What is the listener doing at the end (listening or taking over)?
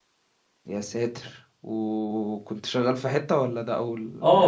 taking over